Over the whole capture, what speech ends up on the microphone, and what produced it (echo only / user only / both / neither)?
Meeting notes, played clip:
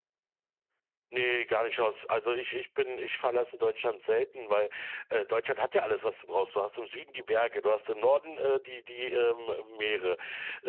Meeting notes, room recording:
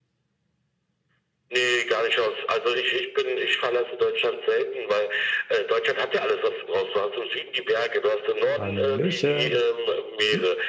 both